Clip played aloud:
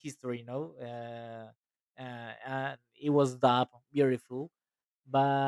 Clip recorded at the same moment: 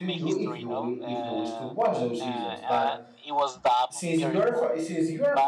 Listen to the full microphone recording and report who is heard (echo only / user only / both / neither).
both